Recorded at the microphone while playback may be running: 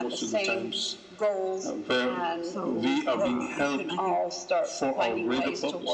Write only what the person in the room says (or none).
So uh, I I think